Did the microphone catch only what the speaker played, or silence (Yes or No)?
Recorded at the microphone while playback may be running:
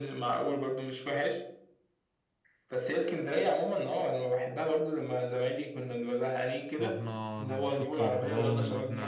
No